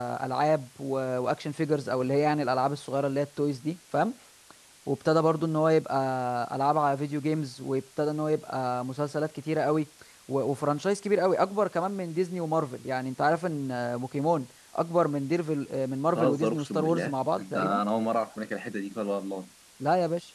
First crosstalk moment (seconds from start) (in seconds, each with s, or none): 16.1 s